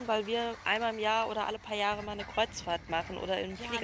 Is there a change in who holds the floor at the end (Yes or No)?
Yes